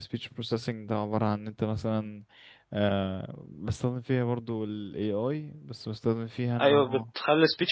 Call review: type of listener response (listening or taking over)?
taking over